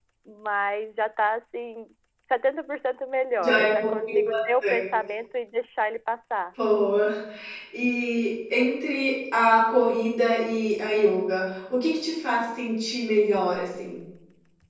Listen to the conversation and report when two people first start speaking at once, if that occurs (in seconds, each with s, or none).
3.4 s